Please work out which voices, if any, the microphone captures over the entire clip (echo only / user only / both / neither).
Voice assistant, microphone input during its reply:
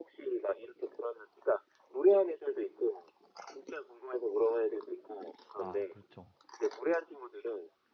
both